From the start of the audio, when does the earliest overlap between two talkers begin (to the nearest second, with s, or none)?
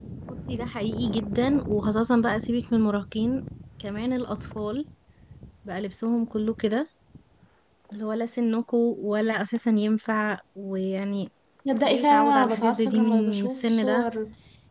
12 s